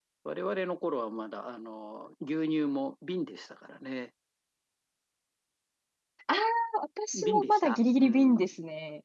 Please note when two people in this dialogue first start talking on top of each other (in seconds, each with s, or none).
7.1 s